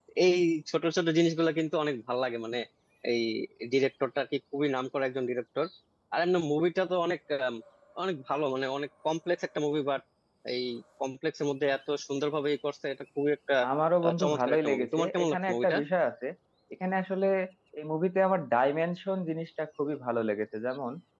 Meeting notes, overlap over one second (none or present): present